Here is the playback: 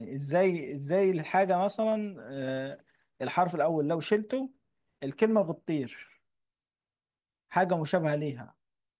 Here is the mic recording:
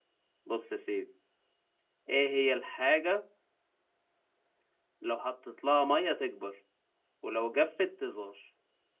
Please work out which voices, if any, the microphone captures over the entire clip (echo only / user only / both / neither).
user only